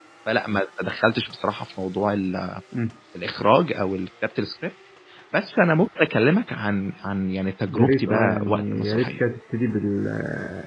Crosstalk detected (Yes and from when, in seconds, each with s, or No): Yes, from 7.6 s